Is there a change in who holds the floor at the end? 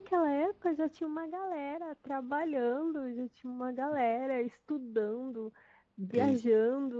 No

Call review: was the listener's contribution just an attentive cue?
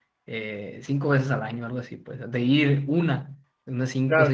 No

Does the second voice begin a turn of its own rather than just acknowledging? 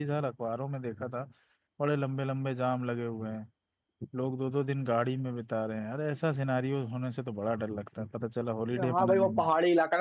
Yes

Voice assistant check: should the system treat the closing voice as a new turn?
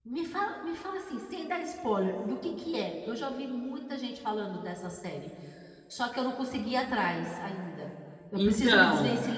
No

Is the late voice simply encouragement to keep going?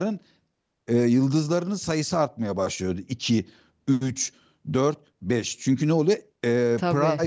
Yes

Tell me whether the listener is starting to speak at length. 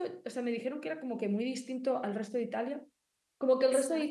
No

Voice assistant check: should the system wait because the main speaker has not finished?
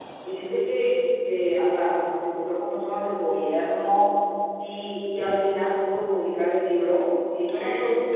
Yes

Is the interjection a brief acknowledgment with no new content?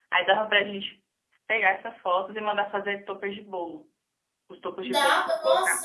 No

